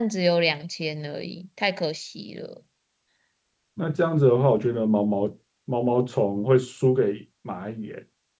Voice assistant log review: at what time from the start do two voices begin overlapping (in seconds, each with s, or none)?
none